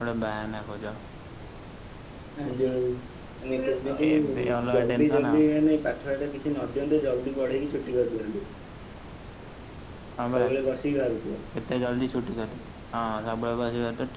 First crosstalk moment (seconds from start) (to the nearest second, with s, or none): 4 s